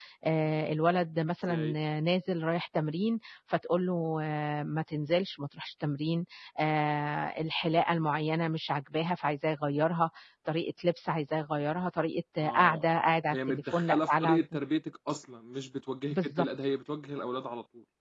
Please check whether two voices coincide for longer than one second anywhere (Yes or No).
Yes